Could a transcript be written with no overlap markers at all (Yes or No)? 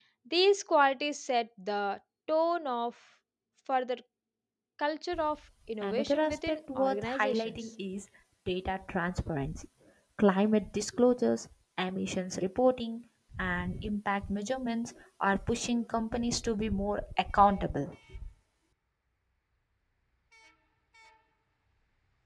No